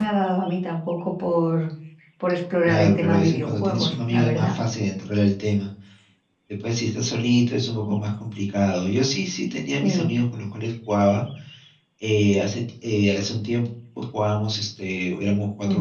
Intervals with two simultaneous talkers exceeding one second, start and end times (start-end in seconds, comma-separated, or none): 2.6-4.5